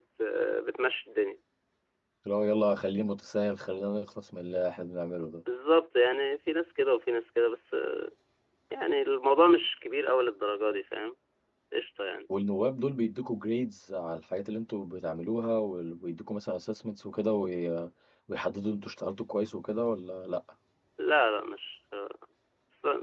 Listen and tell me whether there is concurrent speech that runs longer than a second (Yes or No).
No